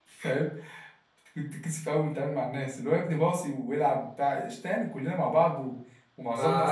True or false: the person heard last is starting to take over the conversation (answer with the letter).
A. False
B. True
A